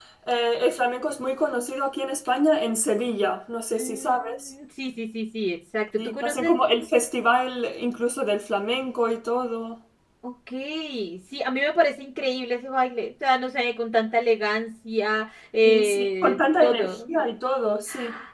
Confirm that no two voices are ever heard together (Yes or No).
No